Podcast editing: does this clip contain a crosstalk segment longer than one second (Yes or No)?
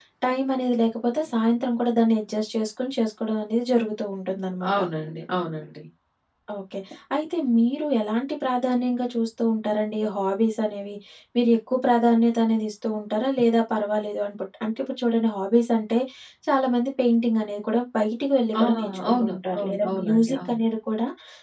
Yes